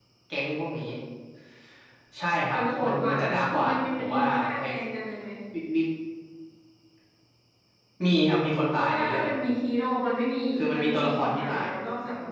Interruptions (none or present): present